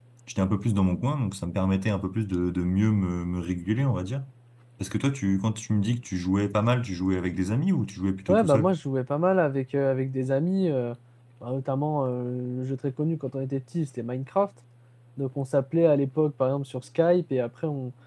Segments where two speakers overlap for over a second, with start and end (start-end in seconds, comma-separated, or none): none